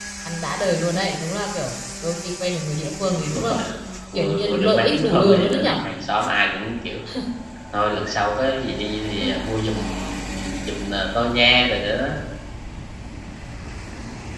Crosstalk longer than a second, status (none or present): present